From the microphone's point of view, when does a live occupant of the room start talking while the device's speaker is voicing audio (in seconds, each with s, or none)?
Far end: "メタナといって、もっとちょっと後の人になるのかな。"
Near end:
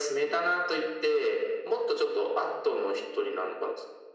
none